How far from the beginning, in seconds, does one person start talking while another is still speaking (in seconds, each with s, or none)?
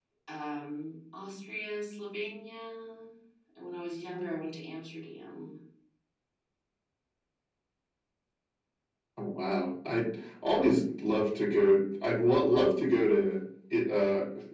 none